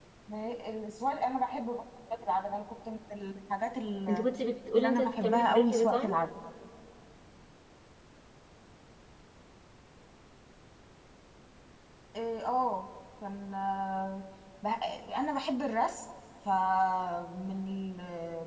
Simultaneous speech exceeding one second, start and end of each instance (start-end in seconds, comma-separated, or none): 4.8-6.2